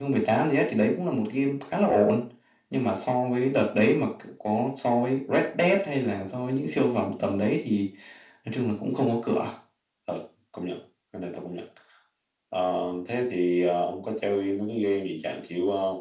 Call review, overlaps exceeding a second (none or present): none